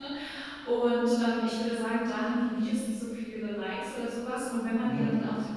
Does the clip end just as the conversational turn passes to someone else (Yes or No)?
No